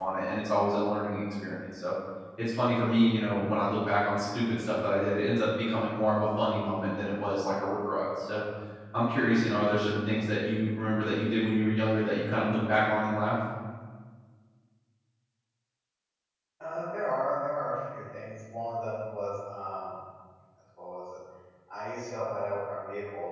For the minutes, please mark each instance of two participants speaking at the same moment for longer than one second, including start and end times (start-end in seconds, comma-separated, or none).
none